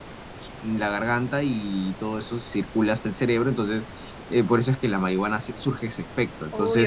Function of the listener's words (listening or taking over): taking over